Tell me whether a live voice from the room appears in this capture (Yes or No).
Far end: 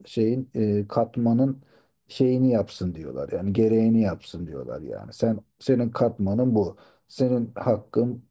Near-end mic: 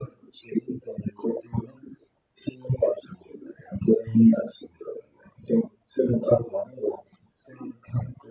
No